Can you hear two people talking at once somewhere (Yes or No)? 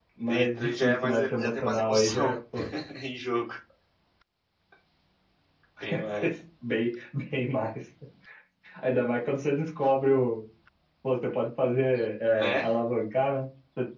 Yes